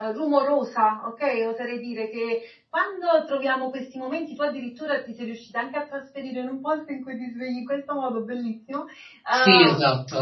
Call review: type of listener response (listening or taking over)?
taking over